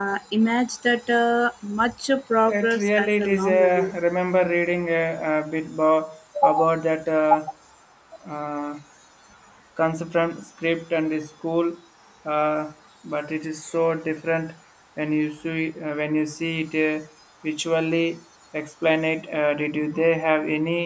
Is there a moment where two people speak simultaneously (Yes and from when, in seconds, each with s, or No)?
Yes, from 2.5 s